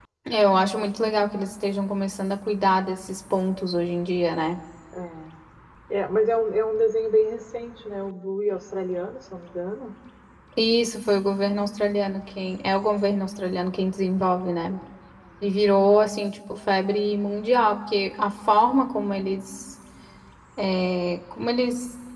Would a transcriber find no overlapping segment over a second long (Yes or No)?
Yes